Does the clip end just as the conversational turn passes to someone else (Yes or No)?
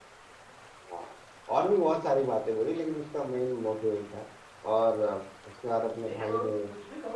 Yes